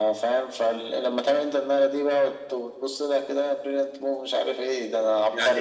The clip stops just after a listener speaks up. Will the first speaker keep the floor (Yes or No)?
No